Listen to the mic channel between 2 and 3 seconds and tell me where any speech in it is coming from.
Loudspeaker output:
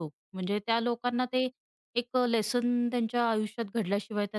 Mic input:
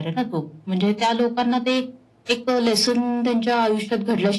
echo only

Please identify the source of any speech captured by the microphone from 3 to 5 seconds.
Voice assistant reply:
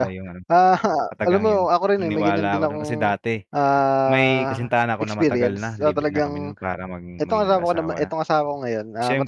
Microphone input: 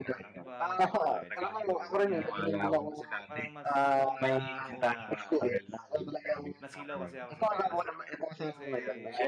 both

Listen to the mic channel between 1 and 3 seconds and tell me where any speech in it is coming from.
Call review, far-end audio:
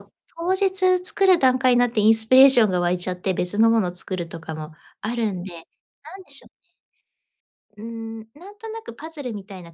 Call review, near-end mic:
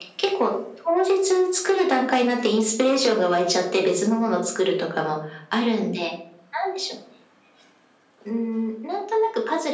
echo only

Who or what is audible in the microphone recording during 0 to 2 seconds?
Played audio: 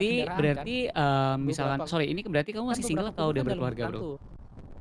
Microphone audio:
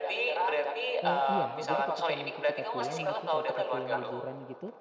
both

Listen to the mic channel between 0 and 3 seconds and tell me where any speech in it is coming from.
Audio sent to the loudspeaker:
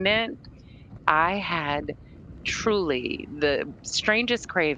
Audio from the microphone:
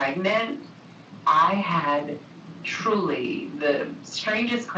echo only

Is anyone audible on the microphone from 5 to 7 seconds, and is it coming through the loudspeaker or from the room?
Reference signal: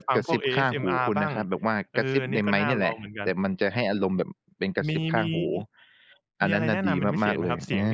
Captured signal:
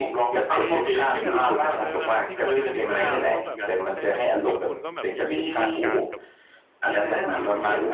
both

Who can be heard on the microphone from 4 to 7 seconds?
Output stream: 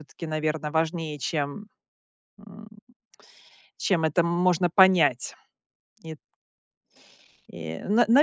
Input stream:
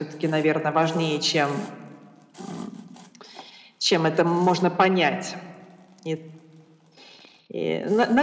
echo only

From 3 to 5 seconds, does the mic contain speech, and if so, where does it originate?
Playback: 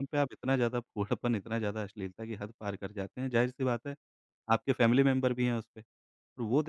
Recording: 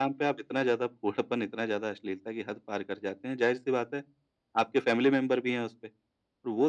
echo only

